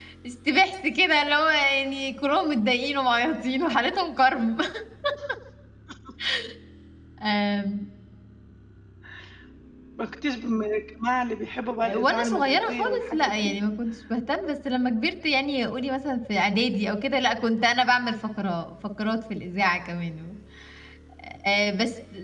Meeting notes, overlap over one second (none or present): present